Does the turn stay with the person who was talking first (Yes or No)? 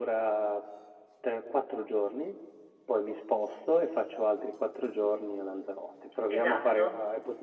No